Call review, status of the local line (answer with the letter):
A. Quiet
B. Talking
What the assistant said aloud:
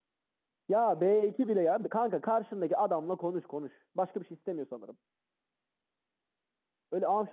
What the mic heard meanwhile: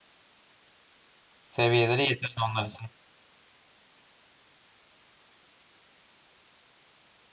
B